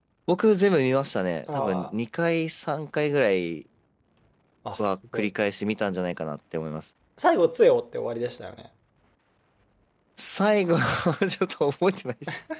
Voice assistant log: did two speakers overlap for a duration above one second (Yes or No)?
No